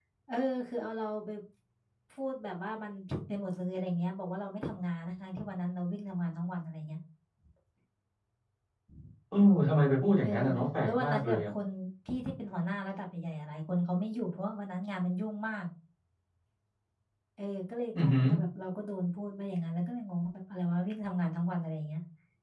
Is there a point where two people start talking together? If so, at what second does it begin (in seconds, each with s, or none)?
10.2 s